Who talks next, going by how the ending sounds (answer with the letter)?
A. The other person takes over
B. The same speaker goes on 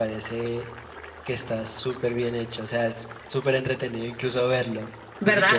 B